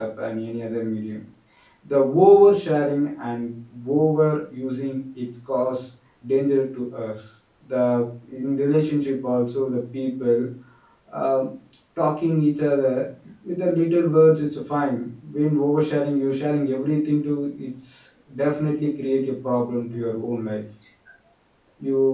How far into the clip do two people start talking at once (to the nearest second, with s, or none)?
none